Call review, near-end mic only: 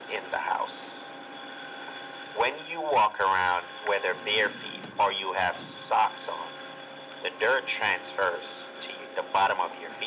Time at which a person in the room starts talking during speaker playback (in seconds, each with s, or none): none